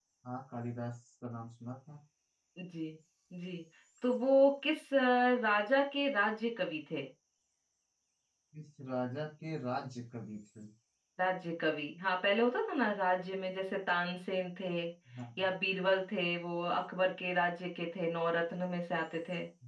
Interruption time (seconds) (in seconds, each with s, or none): none